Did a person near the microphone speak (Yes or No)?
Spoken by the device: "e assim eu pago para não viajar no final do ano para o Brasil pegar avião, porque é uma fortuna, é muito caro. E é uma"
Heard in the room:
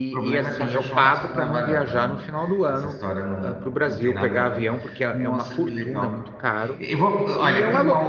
Yes